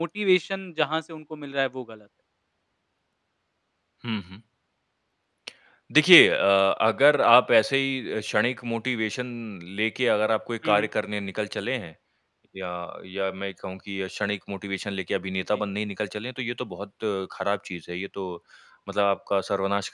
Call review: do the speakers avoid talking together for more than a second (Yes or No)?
Yes